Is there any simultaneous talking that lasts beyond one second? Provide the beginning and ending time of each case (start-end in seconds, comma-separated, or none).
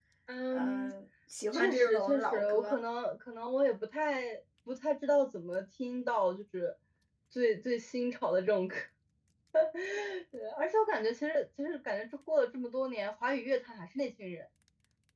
1.5-2.8